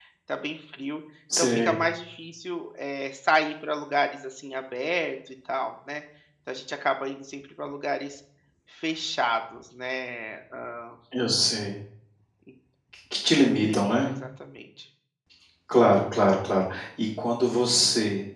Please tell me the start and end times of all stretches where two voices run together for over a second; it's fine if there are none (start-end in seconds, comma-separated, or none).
none